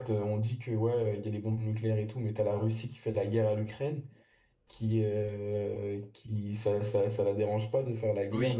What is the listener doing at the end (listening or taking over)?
listening